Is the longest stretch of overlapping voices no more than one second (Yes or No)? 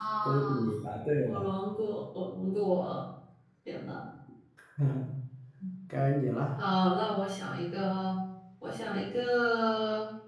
Yes